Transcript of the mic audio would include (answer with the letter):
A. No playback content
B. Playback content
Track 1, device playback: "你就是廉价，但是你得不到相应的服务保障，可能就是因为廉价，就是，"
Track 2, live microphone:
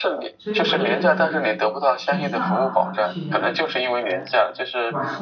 B